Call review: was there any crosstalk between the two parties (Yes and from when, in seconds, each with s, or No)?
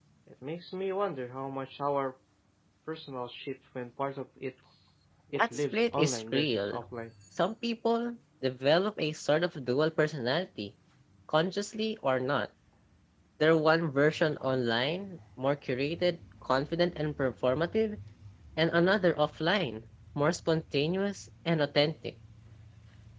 Yes, from 5.3 s